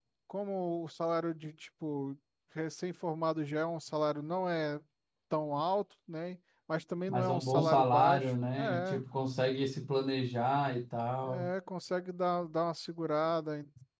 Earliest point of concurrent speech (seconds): 7.1 s

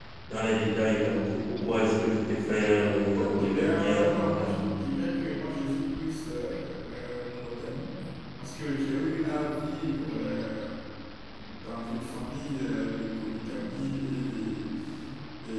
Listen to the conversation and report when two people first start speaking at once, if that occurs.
3.1 s

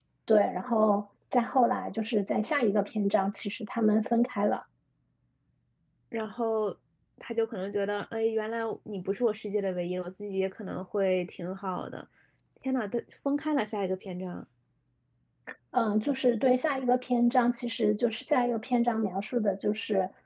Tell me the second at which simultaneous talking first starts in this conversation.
none

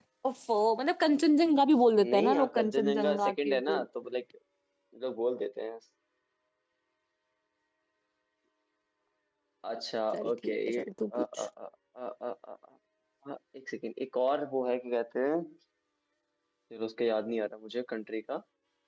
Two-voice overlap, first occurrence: 1.9 s

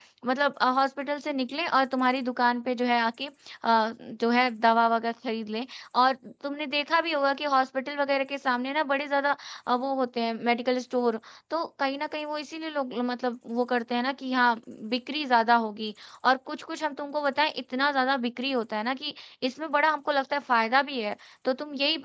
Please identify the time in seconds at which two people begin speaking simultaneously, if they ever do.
none

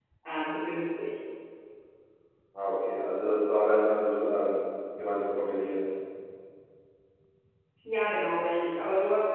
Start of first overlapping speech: none

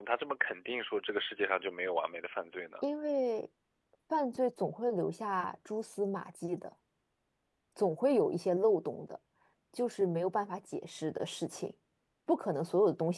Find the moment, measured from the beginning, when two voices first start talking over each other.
none

